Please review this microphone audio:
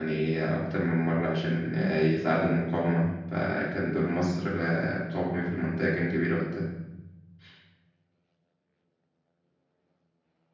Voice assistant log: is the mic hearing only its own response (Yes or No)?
No